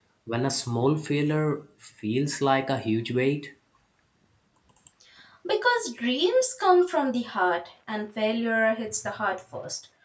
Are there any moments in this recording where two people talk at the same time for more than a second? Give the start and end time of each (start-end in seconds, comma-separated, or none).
none